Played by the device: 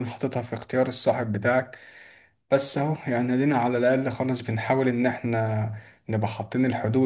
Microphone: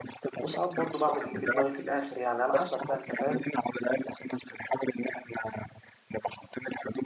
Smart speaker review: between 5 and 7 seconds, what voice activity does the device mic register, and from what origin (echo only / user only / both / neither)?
echo only